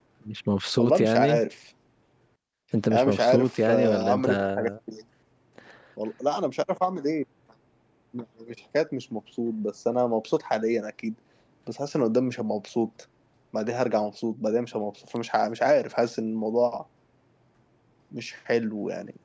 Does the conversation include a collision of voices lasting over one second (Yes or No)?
Yes